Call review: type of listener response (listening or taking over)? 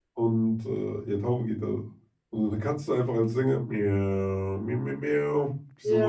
taking over